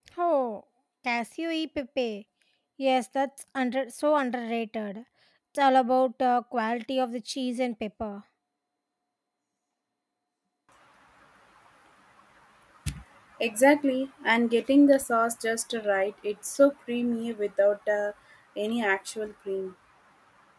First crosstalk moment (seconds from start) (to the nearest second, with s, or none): none